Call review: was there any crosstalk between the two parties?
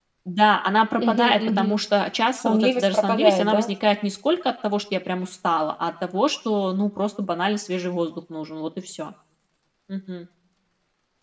Yes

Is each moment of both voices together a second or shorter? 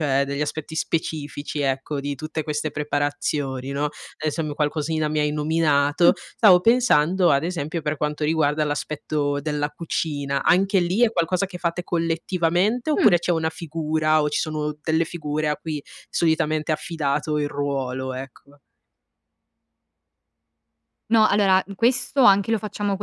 Yes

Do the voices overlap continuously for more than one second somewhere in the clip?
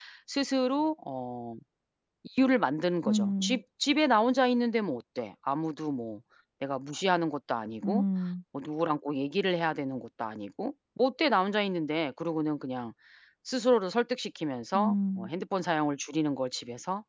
No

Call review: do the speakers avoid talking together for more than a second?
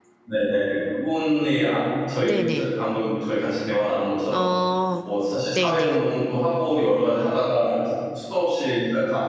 Yes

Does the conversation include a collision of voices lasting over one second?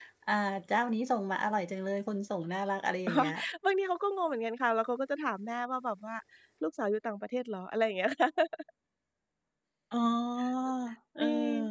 No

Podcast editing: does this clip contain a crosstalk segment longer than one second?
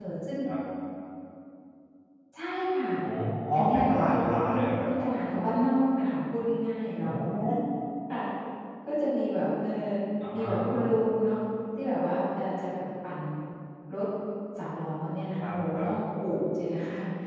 Yes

